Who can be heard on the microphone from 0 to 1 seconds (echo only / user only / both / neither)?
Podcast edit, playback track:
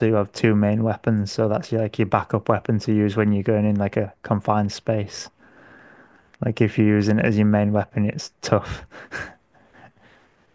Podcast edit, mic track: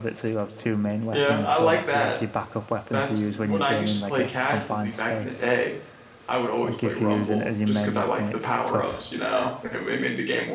echo only